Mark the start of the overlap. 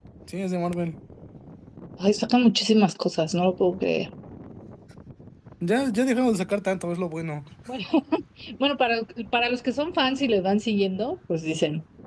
none

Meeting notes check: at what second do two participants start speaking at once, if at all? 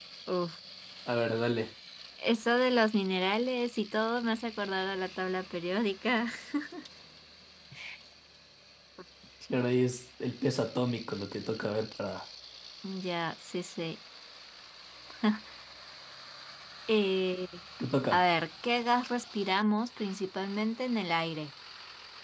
none

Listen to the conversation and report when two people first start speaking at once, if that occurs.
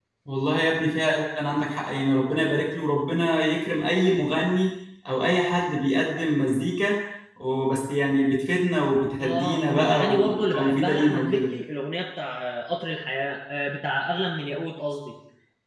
9.2 s

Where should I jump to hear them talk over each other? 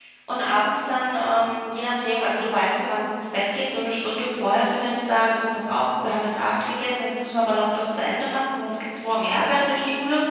none

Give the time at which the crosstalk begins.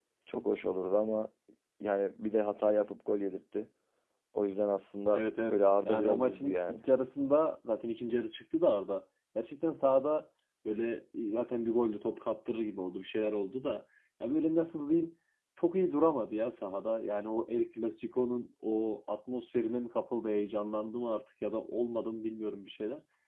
5.1 s

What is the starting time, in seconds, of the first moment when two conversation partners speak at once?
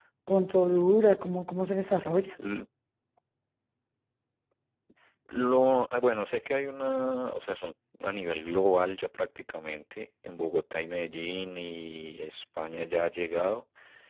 none

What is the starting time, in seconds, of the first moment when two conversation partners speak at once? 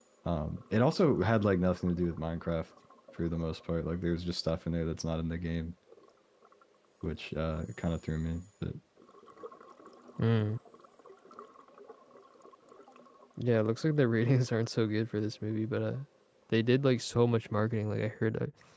none

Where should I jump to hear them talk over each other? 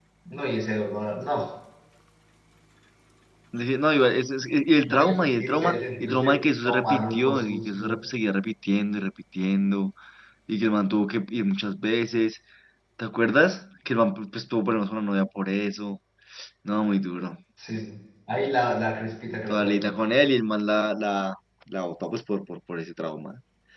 4.9 s

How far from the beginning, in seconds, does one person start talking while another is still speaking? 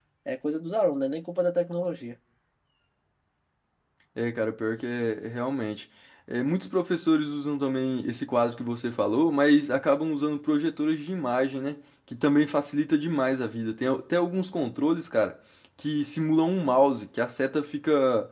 none

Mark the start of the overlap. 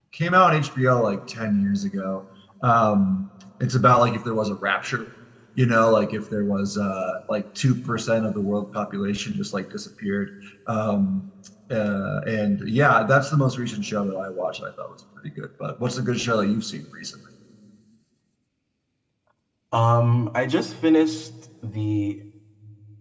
none

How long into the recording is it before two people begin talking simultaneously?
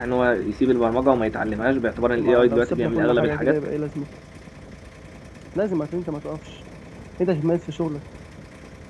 2.2 s

